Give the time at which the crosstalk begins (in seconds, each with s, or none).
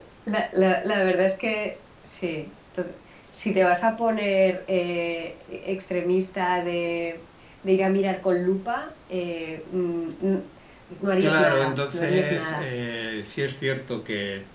11.2 s